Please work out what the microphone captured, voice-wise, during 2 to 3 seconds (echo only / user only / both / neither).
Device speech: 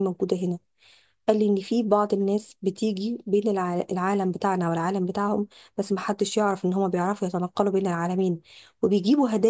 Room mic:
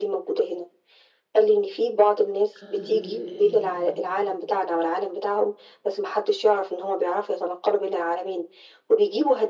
both